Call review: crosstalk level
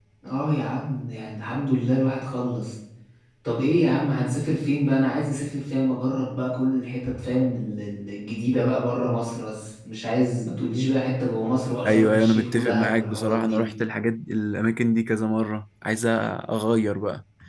present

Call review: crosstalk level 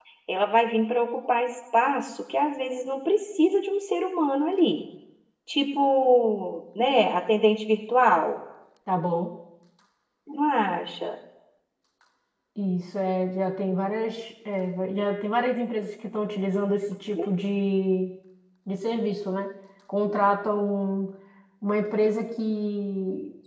none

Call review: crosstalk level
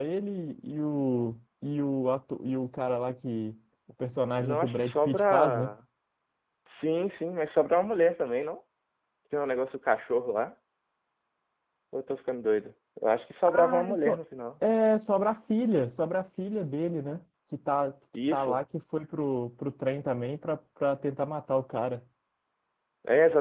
present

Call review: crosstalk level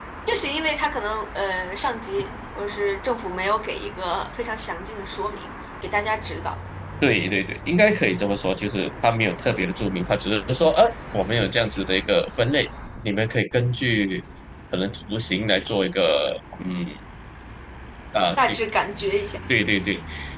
none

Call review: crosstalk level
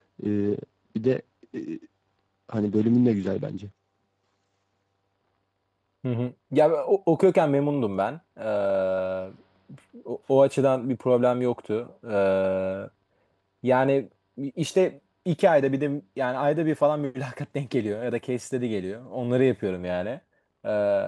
none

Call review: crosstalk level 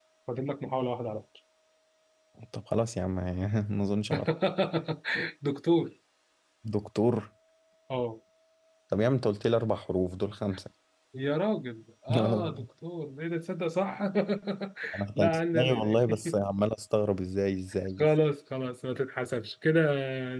present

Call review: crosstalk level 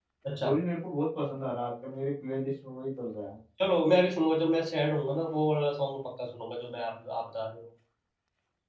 none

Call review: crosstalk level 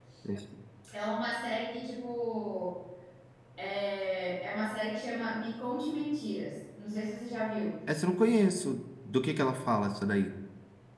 none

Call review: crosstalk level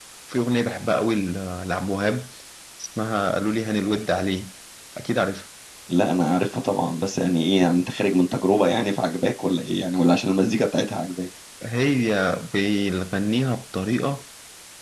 none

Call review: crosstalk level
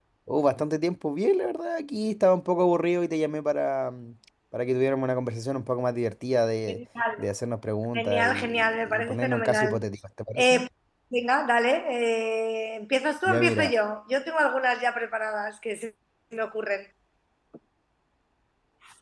present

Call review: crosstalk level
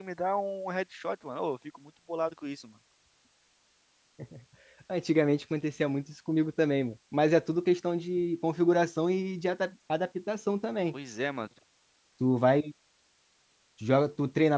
none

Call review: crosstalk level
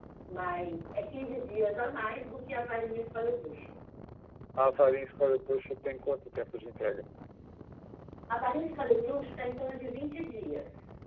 none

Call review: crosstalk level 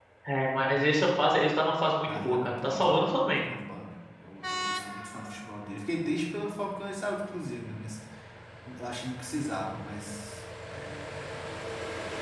present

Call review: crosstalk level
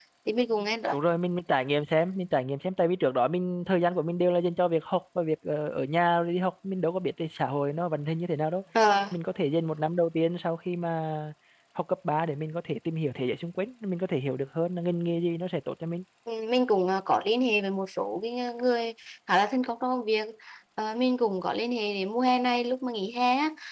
none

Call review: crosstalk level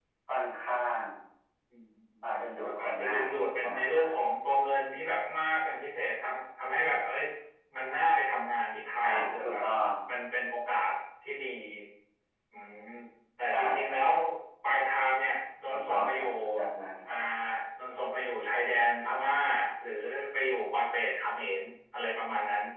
present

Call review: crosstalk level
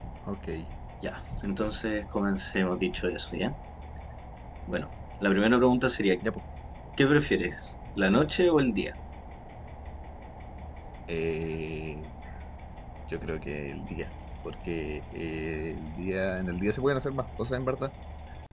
none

